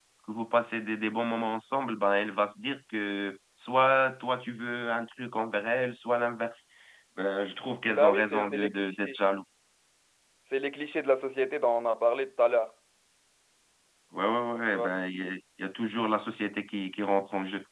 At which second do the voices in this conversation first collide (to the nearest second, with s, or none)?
8 s